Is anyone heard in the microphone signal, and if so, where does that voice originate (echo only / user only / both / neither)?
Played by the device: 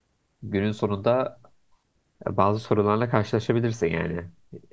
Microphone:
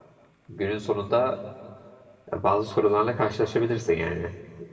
echo only